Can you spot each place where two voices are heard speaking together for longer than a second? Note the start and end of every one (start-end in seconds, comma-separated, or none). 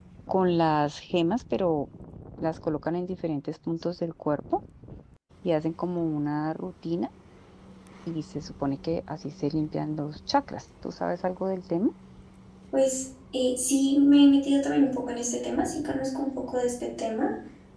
none